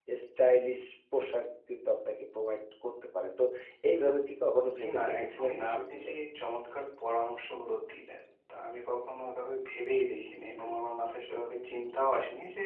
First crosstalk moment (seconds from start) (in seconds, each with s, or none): 4.8 s